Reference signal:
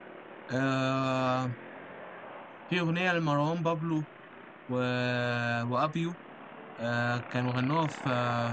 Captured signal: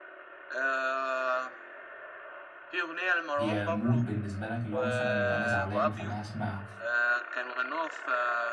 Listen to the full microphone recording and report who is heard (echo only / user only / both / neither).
both